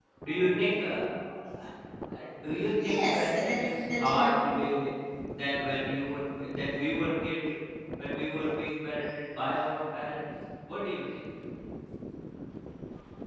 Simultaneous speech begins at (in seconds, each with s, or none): 2.8 s